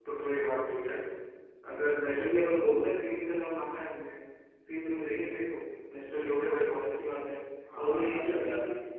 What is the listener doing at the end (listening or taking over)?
taking over